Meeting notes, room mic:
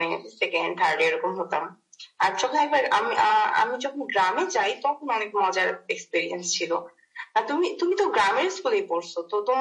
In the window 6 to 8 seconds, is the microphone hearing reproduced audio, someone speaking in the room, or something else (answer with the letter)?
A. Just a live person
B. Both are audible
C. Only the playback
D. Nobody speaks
C